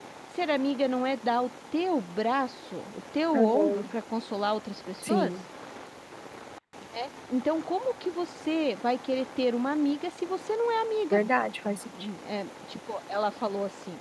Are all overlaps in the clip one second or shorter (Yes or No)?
Yes